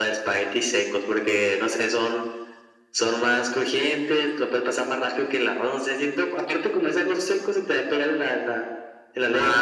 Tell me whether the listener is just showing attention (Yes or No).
No